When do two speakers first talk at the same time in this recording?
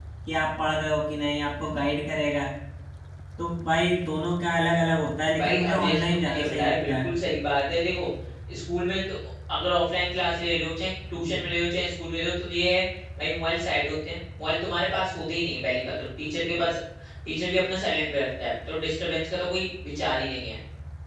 5.4 s

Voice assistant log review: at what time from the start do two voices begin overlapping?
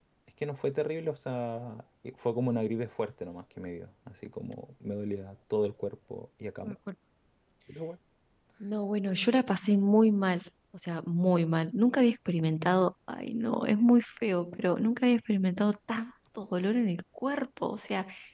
none

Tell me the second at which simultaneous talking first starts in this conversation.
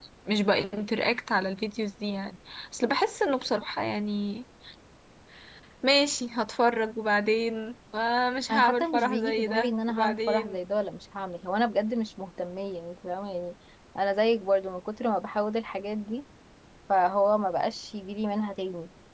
8.5 s

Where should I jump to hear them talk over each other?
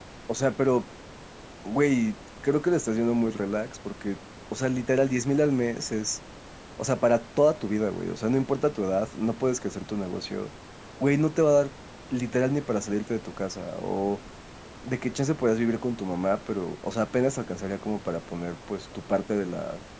none

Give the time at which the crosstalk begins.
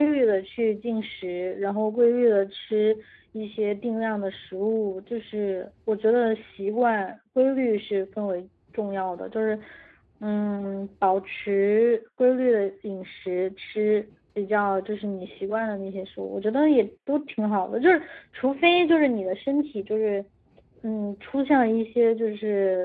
none

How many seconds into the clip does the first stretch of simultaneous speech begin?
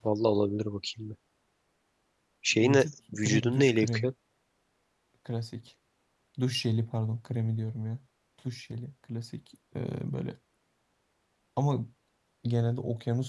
2.6 s

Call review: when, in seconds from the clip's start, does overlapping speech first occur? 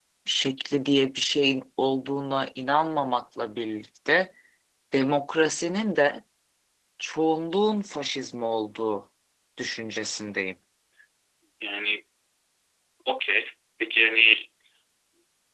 none

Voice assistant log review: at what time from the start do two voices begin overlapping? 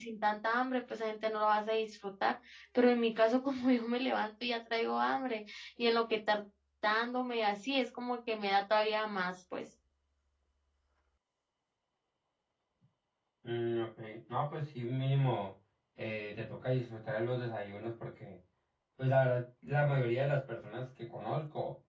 none

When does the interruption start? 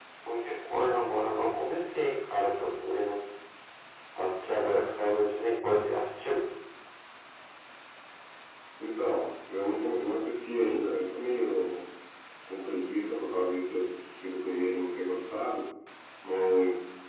none

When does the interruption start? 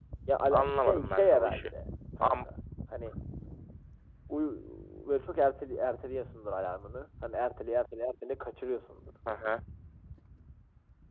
0.5 s

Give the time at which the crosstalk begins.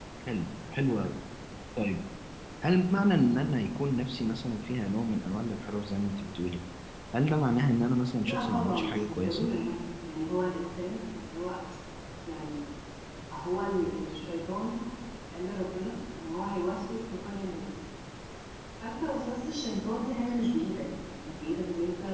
8.2 s

